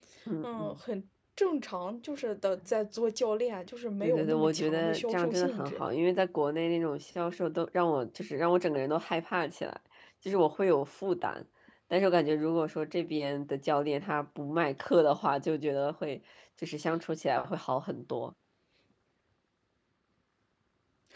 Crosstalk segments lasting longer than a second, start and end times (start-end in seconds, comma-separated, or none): 4.0-5.8